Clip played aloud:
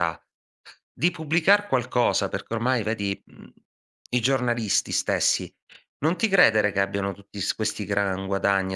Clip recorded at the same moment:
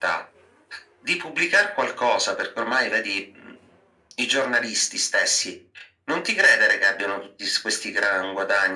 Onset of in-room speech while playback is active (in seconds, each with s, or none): none